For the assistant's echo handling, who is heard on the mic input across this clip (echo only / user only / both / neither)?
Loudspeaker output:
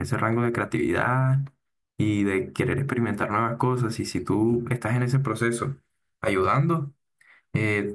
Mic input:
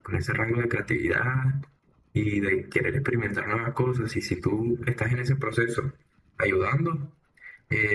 echo only